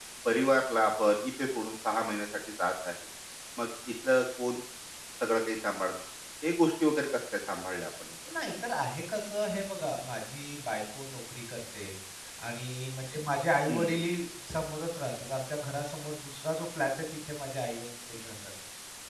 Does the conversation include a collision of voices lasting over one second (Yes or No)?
No